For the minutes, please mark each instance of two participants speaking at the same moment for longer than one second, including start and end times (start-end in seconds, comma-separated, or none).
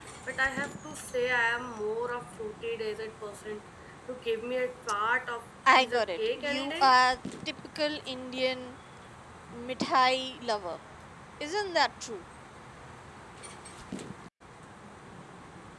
5.7-6.9